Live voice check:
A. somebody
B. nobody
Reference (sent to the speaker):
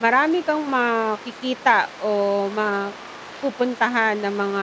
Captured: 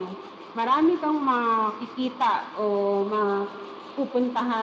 B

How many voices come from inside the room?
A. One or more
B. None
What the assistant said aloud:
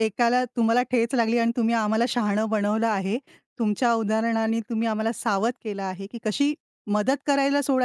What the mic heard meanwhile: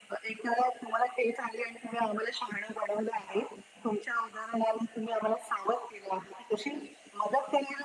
B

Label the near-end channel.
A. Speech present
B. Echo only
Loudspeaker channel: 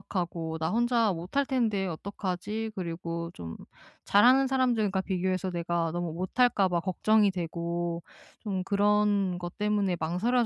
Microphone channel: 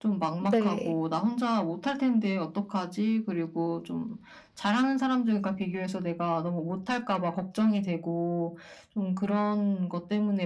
A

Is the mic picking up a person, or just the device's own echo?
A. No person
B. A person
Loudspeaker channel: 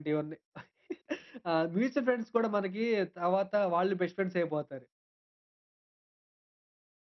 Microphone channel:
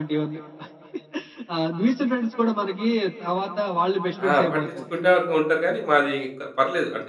B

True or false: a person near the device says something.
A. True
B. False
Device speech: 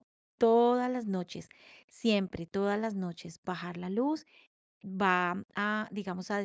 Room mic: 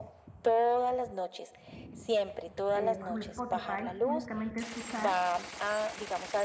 A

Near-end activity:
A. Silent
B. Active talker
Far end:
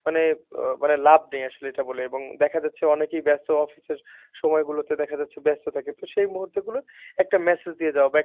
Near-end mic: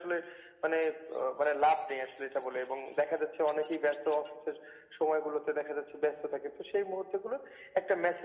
A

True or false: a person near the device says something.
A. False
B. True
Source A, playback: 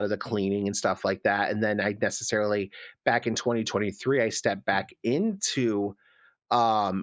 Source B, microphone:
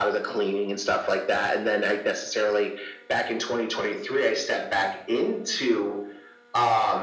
A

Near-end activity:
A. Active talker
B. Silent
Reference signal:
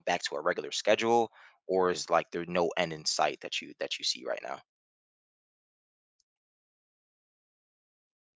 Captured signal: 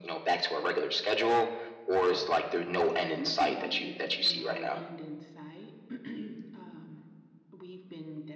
A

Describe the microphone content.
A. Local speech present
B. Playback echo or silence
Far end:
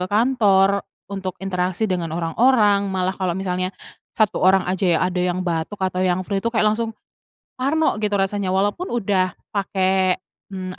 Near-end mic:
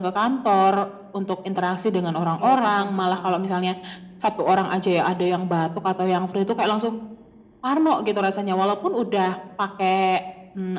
A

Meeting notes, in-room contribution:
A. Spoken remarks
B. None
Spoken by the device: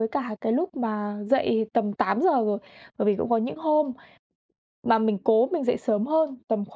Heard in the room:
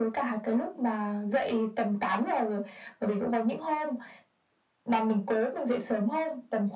B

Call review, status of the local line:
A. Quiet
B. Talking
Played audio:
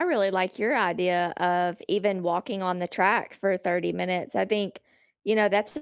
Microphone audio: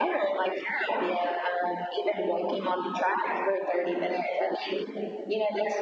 A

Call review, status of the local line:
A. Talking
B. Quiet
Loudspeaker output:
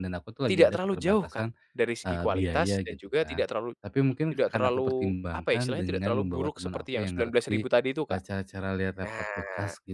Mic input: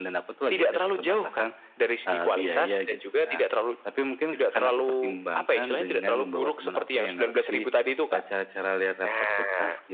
B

